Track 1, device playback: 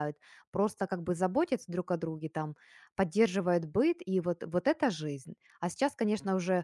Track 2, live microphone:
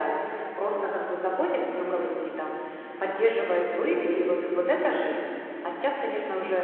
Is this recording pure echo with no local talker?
Yes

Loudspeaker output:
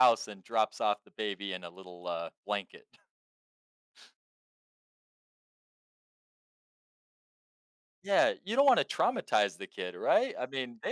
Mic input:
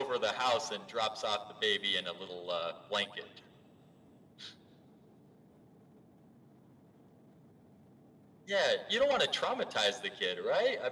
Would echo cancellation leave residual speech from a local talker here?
No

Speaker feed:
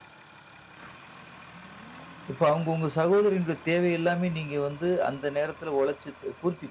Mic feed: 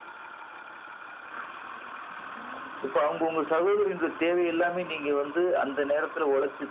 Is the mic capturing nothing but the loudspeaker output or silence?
Yes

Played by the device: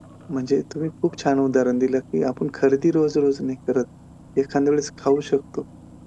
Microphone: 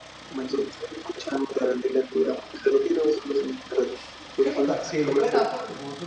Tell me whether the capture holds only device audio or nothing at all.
No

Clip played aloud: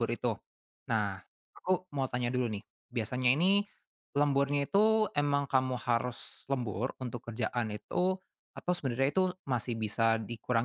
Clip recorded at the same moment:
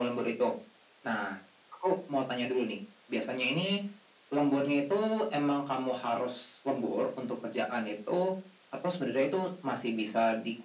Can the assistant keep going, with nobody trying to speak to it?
Yes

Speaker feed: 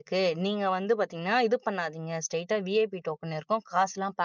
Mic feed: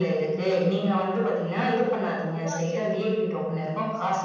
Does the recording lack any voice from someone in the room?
No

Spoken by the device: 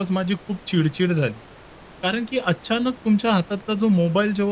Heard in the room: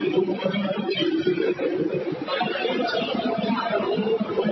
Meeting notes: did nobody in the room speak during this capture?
Yes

